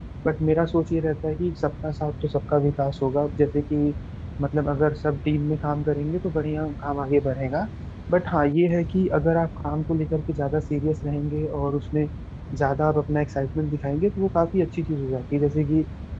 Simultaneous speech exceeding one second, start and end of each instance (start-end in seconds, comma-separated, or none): none